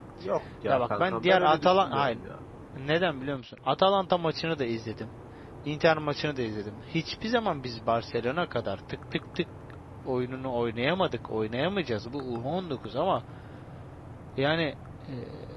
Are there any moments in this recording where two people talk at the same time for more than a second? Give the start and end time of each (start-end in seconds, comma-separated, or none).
0.7-2.2